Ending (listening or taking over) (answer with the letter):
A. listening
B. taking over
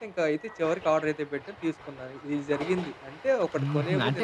B